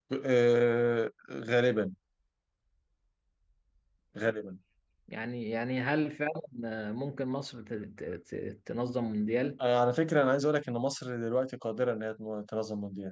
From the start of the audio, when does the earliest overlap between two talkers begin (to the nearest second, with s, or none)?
none